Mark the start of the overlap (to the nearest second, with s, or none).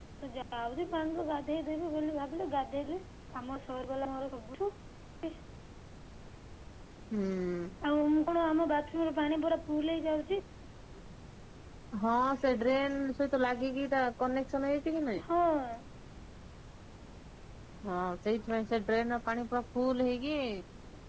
none